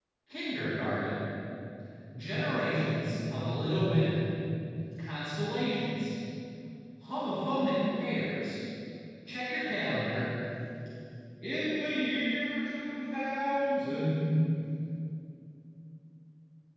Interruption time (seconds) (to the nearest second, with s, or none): none